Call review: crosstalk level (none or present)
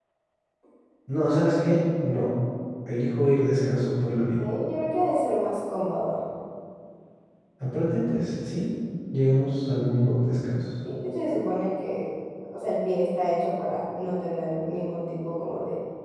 none